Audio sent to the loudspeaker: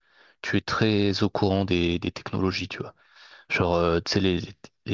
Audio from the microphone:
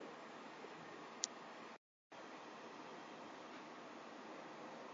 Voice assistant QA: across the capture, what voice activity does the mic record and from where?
neither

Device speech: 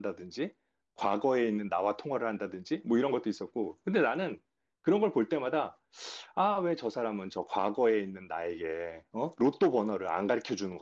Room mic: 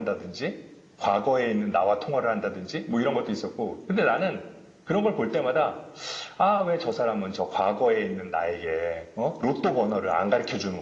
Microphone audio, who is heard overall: echo only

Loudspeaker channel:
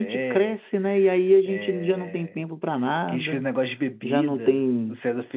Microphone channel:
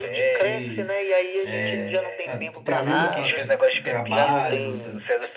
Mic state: both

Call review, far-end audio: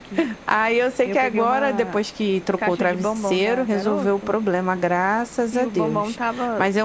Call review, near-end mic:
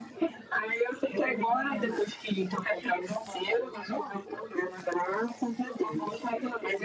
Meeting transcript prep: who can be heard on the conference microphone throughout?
echo only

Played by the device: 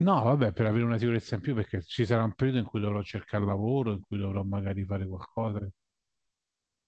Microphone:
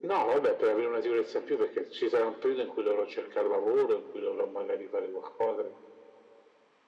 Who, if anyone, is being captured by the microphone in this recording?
echo only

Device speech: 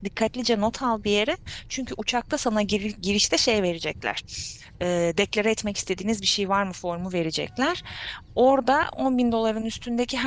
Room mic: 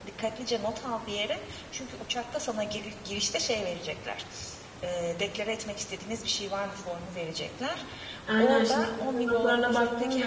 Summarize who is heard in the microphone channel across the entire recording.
both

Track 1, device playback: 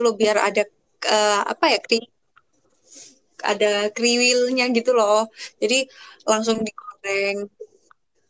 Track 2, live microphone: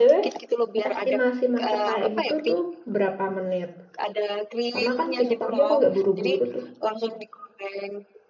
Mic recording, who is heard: both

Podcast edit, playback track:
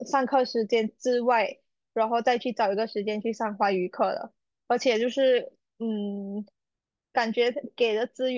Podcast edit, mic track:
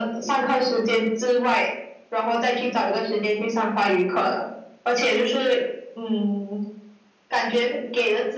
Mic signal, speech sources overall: echo only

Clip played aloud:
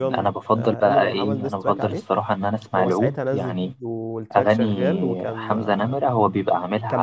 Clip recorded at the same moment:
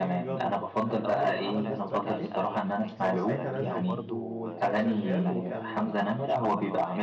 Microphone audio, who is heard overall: both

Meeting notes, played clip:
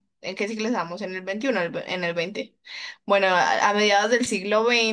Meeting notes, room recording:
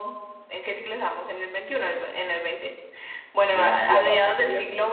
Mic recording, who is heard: both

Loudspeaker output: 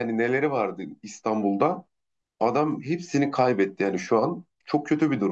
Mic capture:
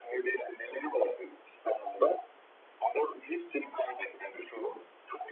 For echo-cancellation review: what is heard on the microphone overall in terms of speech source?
echo only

